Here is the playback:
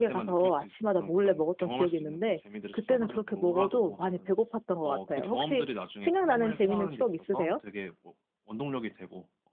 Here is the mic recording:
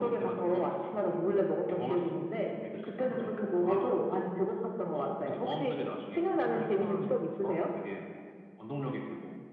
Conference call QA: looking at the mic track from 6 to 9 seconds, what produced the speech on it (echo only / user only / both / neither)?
echo only